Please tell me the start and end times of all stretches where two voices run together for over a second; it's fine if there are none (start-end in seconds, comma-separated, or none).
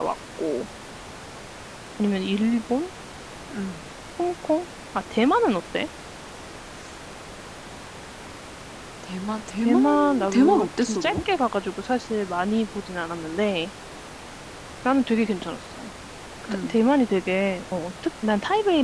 9.6-11.2